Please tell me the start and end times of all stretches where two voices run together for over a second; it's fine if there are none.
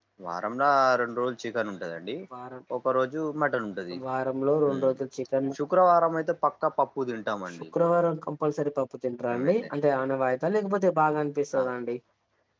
none

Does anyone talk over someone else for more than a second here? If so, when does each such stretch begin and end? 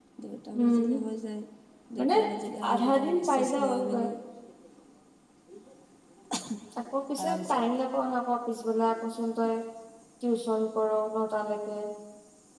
2.7-4.0

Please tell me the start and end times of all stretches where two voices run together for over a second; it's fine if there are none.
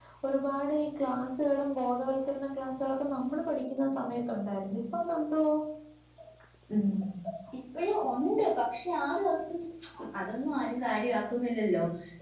none

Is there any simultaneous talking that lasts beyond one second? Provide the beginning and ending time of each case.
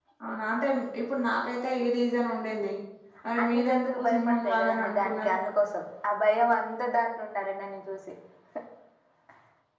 3.4-5.4

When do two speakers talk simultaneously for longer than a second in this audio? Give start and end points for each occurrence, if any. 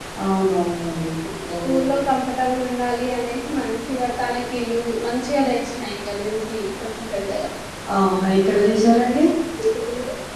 none

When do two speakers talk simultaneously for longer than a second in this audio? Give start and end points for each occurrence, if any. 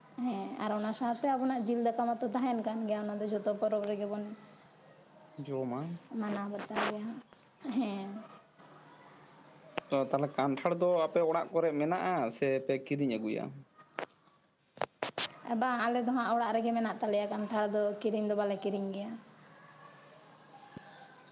none

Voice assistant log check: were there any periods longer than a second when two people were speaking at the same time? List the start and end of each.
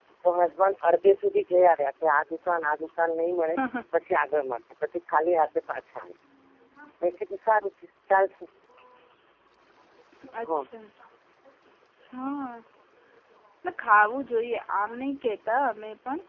none

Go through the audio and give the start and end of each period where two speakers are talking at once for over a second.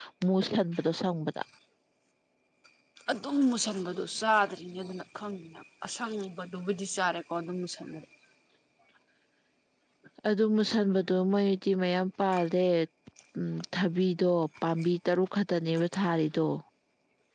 none

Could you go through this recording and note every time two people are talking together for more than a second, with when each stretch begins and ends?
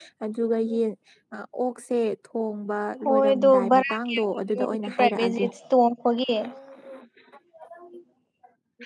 3.0-5.5

